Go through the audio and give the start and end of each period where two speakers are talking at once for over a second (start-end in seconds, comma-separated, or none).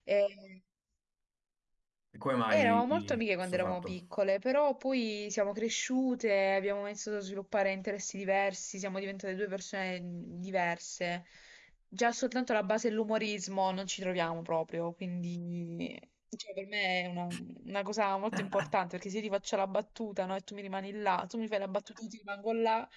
2.5-4.0